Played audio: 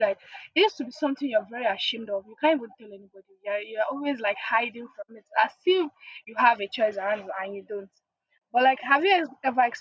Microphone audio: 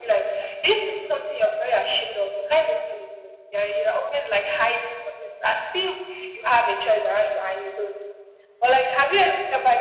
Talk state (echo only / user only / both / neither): echo only